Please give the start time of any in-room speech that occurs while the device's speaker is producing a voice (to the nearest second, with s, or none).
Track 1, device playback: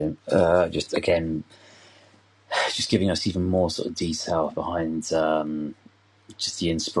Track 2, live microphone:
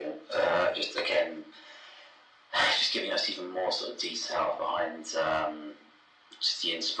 none